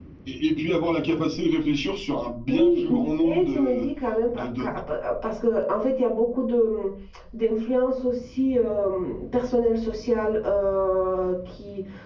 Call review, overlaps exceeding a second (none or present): present